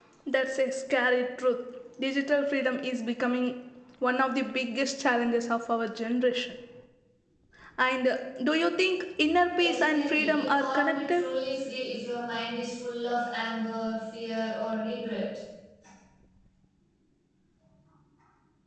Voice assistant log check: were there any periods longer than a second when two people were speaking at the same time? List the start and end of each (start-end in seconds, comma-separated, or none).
9.6-11.2